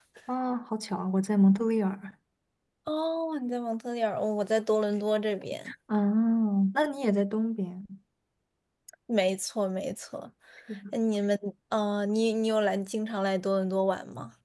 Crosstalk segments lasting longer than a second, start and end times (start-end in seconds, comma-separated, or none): none